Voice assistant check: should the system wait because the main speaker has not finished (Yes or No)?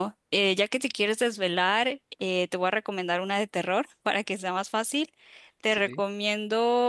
Yes